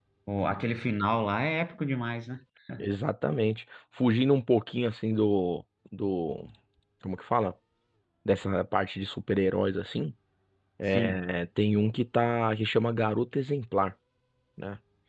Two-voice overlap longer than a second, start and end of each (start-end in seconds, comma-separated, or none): none